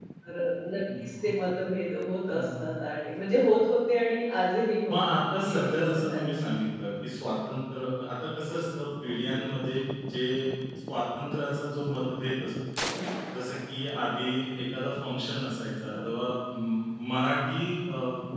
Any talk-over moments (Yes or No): Yes